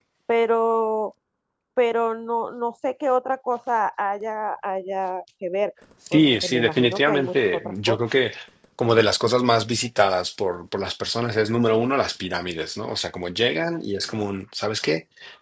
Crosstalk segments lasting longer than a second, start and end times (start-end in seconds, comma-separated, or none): 6.1-8.0